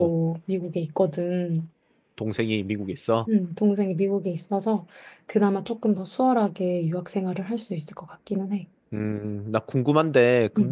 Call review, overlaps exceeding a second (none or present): none